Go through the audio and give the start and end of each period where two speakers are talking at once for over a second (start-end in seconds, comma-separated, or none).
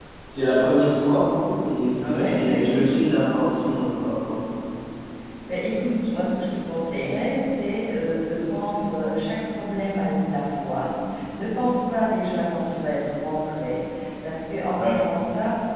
2.0-3.4